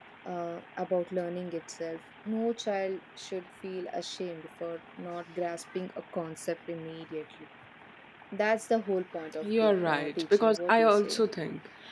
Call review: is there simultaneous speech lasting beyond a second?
Yes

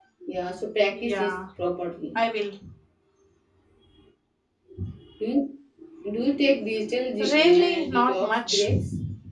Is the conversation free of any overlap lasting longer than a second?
No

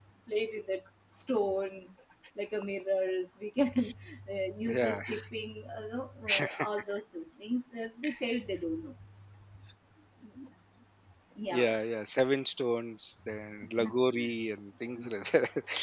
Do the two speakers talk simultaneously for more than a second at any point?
No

